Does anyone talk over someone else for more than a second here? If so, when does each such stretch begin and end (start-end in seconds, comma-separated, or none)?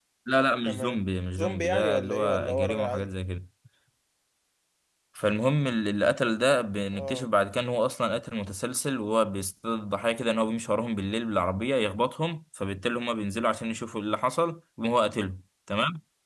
1.4-3.1